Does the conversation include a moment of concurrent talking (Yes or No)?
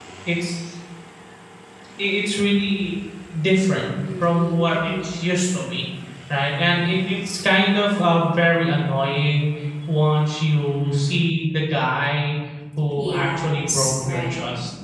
Yes